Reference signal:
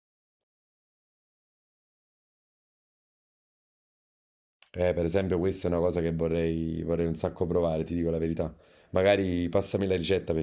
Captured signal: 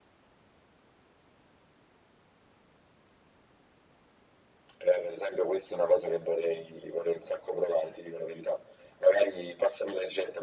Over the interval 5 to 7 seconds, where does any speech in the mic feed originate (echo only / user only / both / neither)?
echo only